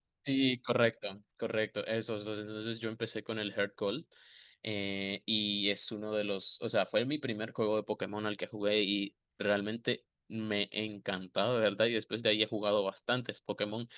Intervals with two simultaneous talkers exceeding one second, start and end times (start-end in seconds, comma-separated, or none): none